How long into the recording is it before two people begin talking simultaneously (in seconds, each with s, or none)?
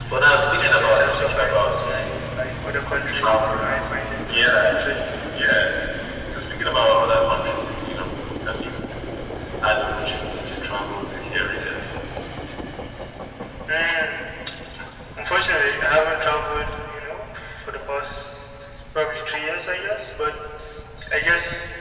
0.5 s